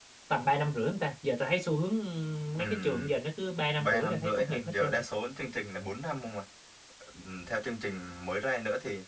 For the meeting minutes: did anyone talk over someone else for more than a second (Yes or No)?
Yes